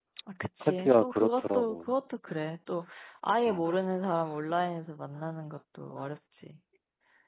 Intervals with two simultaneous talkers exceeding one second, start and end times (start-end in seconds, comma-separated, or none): 0.6-1.9